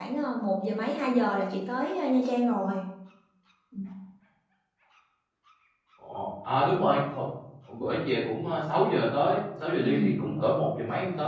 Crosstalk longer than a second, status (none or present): none